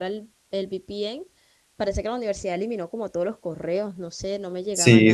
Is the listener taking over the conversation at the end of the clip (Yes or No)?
Yes